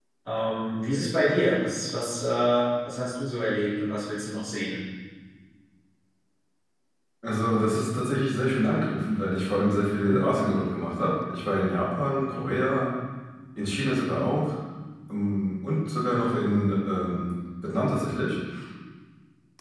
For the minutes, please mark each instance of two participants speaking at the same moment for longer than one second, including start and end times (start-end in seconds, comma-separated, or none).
none